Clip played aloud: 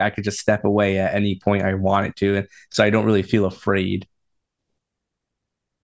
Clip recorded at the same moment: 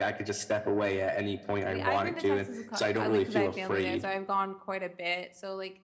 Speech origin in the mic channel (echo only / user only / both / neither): both